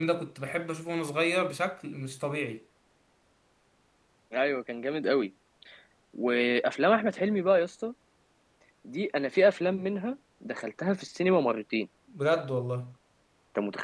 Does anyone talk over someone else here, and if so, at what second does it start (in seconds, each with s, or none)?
none